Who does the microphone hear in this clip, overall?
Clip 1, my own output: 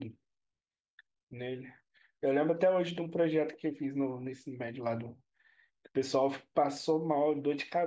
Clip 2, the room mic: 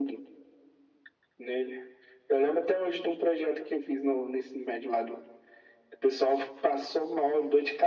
echo only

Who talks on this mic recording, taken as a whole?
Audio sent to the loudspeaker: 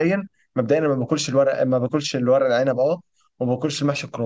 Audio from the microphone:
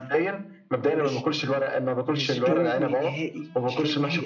both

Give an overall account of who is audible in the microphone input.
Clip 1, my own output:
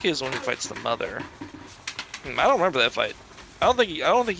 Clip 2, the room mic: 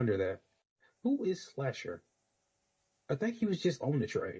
user only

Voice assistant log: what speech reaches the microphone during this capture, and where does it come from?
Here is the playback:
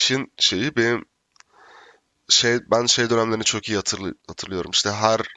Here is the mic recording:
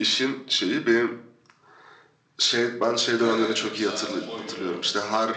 both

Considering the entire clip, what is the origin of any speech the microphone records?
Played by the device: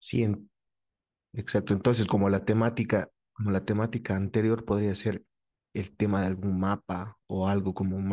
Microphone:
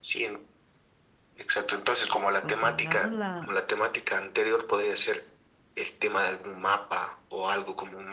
both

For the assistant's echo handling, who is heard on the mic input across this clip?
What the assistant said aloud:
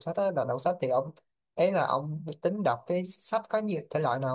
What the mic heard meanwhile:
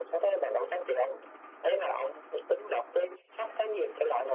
echo only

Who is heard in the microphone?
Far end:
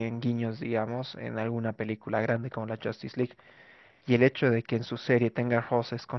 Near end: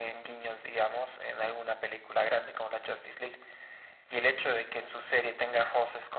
echo only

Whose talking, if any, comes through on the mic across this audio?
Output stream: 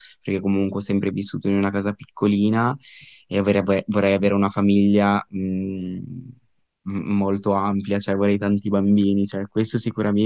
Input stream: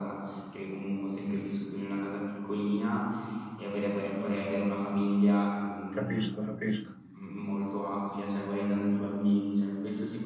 both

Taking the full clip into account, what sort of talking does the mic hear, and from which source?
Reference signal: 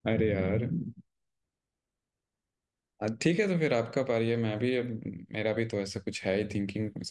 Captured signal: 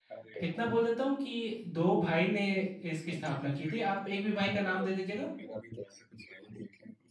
both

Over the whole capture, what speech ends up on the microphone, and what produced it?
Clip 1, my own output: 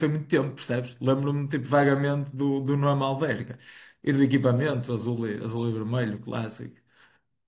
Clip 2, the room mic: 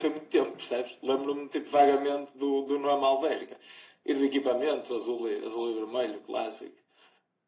echo only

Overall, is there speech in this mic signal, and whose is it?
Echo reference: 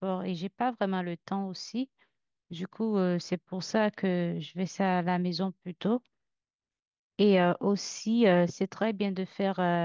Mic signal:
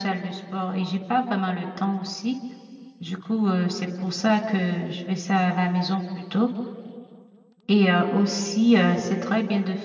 echo only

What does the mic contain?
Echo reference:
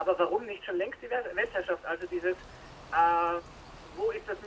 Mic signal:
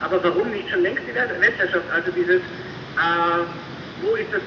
echo only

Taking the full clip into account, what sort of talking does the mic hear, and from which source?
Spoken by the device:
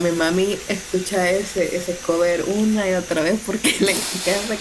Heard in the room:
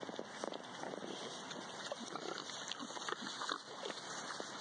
neither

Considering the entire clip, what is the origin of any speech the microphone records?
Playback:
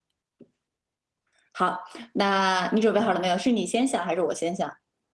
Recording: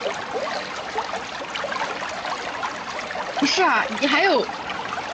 user only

